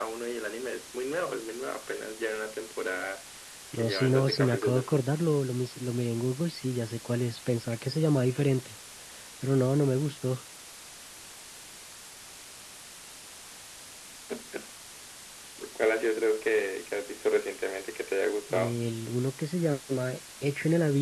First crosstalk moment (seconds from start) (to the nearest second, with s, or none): 4 s